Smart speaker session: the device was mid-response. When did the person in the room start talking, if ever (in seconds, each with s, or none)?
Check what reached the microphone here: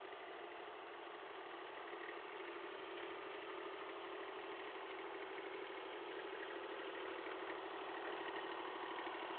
none